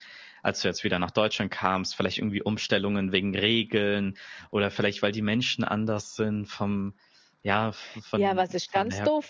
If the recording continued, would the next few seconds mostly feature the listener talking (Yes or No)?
Yes